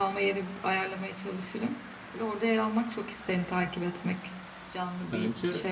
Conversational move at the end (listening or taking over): taking over